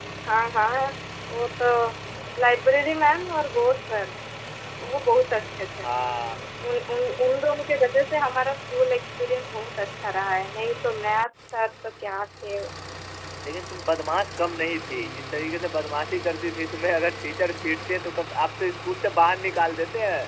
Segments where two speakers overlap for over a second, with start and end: none

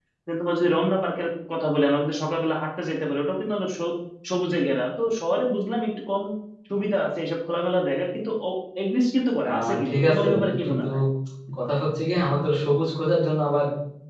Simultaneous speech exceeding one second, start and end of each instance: 9.5-10.9

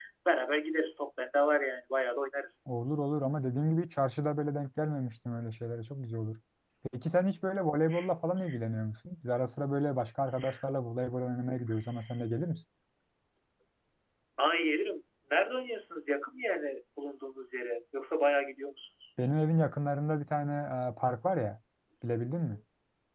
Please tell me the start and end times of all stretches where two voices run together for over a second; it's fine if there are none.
none

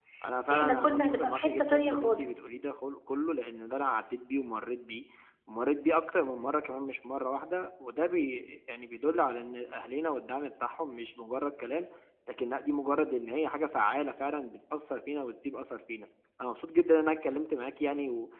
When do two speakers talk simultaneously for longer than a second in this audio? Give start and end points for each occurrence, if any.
0.5-2.2

